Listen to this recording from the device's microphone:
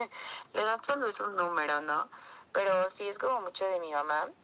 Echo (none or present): present